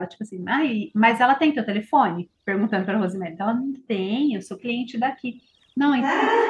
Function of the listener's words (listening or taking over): listening